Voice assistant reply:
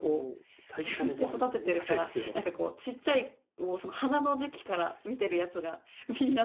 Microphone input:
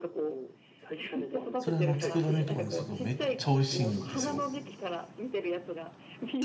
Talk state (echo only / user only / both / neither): both